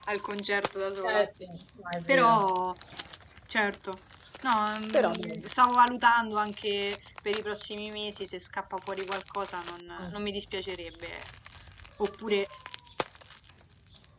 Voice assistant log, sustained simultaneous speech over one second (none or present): none